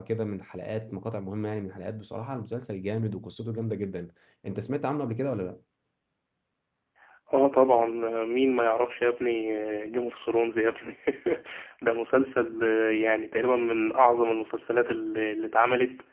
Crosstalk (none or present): none